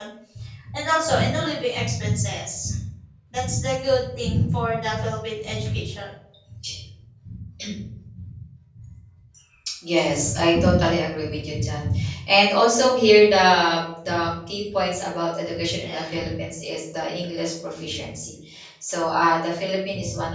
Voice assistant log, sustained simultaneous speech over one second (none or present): none